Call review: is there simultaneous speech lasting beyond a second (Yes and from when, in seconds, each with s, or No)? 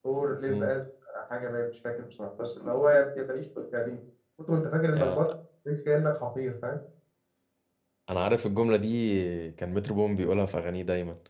No